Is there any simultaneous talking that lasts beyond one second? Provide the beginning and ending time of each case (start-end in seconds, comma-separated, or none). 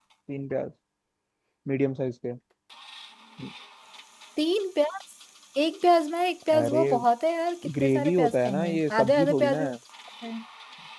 7.8-9.7